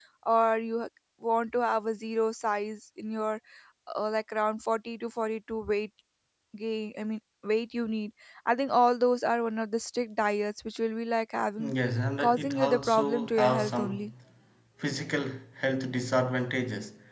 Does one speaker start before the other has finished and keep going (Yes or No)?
Yes